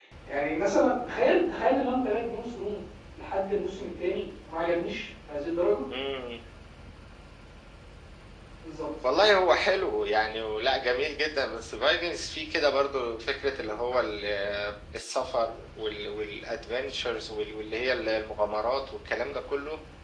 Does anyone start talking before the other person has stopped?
No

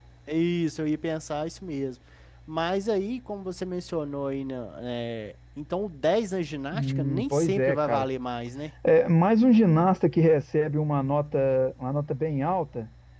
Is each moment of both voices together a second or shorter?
No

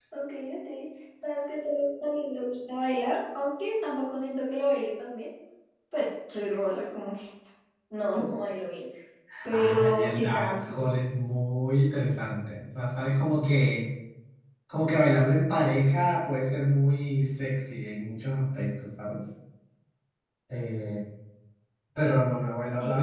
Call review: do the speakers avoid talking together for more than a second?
No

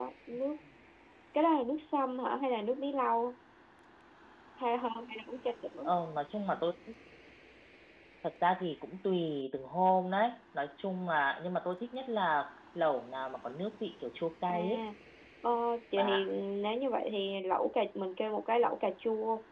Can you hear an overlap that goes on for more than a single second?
No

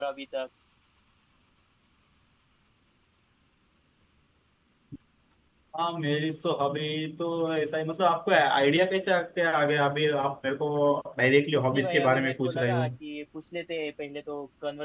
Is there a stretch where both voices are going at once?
Yes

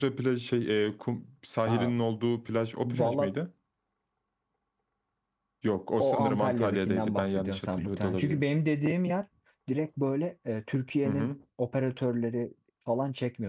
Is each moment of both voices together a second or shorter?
No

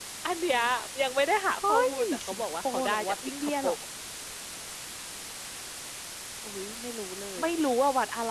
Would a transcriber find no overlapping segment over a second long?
No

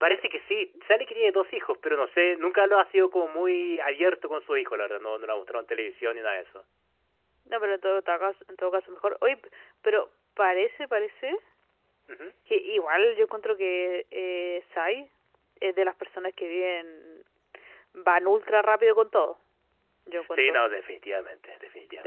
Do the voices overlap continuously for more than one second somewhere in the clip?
No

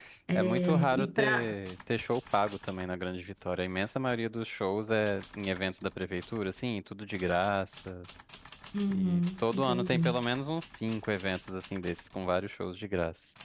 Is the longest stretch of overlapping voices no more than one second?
No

